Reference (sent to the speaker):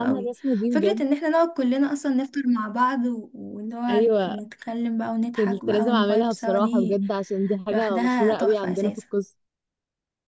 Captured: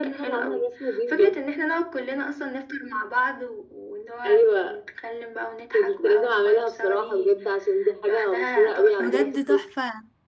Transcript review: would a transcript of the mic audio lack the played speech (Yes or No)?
No